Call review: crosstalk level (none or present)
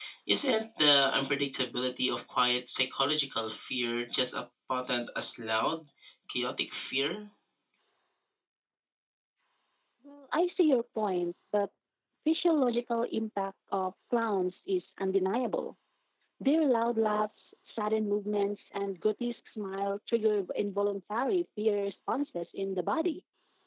none